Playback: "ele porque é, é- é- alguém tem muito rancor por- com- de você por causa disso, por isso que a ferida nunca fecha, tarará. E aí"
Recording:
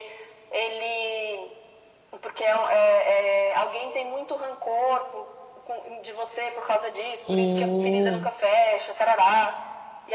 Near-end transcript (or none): Hum.